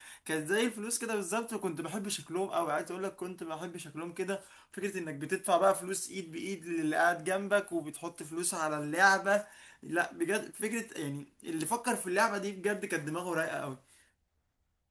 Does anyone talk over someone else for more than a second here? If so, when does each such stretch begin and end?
none

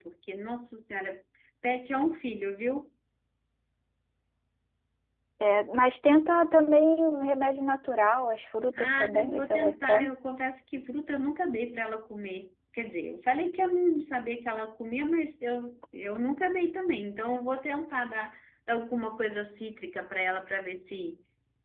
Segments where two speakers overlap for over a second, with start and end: 8.8-10.1

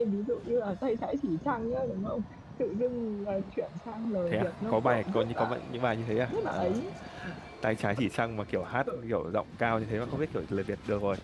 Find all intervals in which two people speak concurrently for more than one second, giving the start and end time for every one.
4.3-5.6

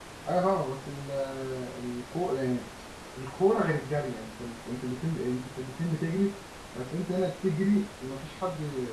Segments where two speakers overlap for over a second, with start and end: none

